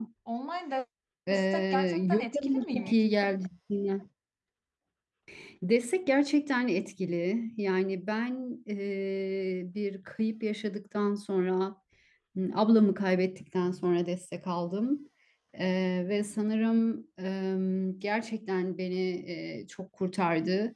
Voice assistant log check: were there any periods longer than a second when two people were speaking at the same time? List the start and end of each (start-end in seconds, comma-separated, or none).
1.3-2.9